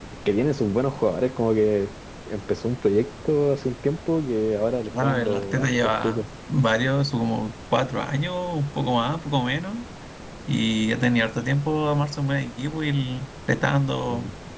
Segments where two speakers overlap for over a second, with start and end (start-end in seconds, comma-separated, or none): 4.9-6.3